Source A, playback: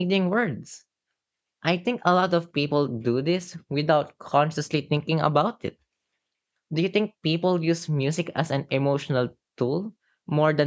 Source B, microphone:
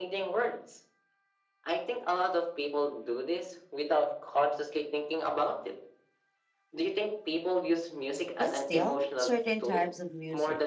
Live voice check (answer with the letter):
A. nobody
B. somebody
B